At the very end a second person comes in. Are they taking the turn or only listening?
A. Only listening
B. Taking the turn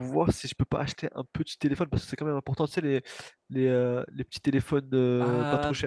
B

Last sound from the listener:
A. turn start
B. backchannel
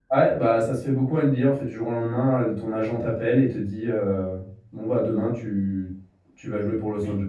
A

